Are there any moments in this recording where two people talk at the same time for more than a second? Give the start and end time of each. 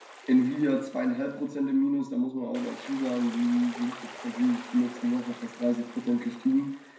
none

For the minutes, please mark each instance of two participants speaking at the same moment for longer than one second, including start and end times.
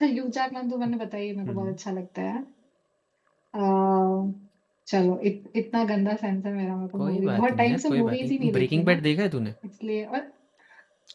7.0-9.0

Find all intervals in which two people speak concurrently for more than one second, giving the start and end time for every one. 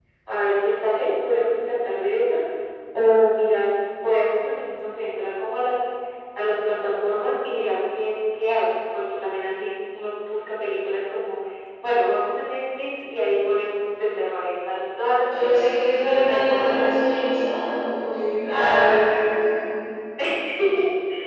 15.3-16.9

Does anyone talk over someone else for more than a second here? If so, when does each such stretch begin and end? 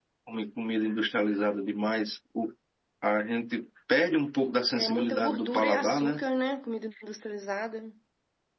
4.7-6.2

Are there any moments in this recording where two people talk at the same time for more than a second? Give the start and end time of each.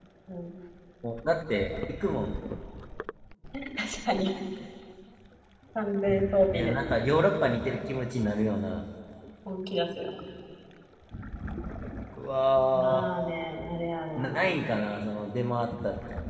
none

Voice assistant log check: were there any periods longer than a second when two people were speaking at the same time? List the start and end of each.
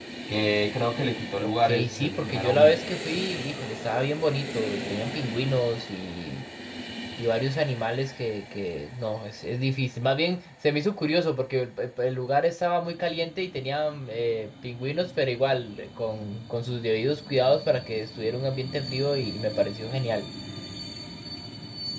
1.4-2.8

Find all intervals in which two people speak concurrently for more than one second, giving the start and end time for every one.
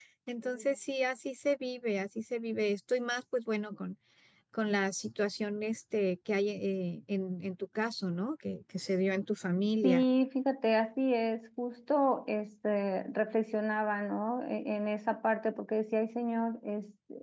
none

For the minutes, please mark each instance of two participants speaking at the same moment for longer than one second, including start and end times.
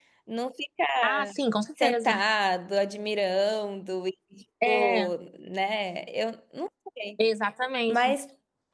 none

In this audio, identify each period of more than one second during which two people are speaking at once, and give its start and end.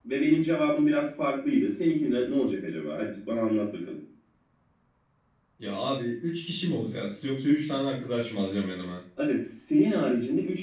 none

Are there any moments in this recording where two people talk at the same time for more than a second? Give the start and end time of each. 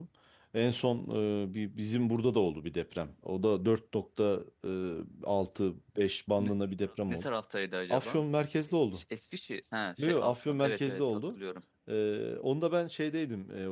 10.0-11.4

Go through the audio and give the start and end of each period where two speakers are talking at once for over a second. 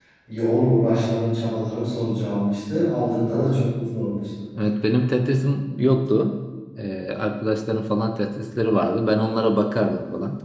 none

